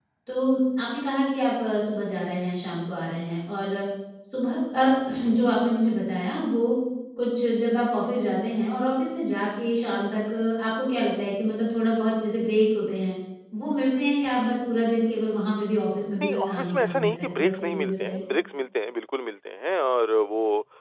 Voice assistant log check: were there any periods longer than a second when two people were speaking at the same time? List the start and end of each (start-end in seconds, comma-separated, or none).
16.2-18.2